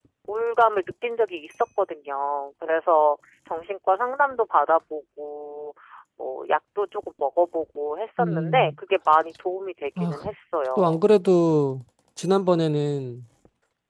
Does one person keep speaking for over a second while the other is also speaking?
No

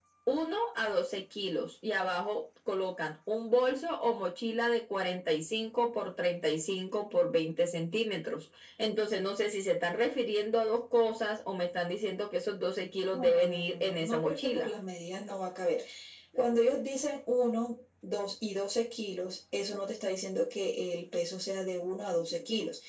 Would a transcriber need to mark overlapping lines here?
Yes, from 13.1 s

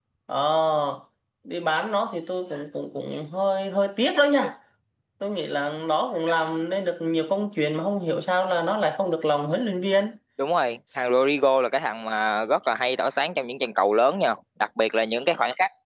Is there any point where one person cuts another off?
No

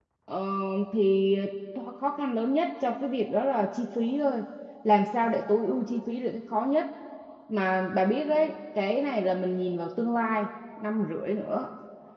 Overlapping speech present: No

